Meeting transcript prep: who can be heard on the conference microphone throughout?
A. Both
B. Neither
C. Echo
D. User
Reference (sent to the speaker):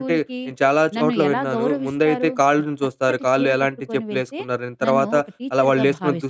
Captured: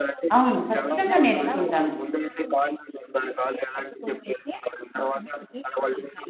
A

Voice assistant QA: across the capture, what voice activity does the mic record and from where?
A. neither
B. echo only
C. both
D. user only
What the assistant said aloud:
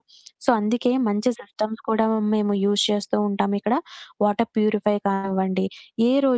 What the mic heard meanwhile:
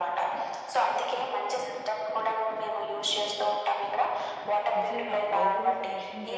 C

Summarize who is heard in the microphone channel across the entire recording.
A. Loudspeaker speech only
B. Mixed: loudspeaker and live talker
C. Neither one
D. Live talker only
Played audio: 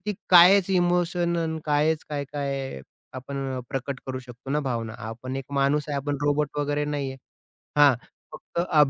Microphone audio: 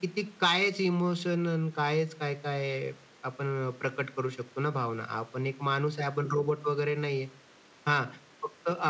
A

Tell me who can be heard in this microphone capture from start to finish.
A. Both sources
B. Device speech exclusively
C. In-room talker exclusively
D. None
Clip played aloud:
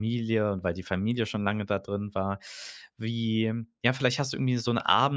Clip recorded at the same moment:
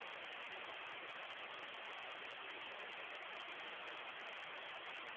D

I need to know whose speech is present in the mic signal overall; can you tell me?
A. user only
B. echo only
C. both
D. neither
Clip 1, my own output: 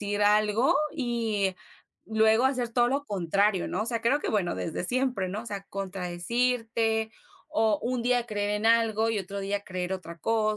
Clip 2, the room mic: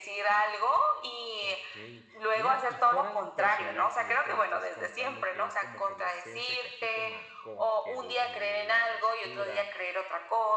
C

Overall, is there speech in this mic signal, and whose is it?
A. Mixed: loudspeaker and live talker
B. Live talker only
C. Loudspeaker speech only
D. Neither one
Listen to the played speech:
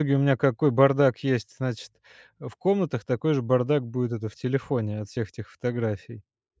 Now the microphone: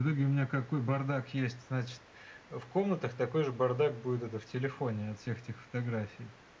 C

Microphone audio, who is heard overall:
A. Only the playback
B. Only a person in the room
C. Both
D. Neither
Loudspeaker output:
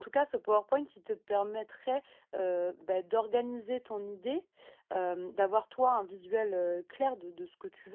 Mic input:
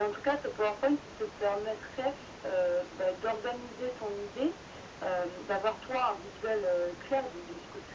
A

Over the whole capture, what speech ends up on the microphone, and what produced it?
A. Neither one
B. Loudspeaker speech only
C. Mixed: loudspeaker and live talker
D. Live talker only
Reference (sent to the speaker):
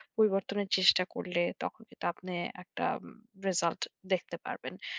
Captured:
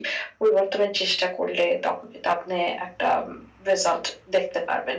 B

